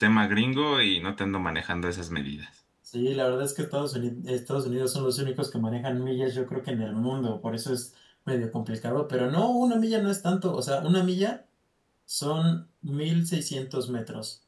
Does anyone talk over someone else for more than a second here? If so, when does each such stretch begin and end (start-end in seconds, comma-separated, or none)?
none